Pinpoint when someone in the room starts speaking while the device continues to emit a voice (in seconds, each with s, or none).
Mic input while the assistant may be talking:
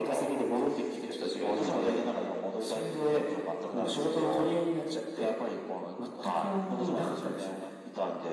none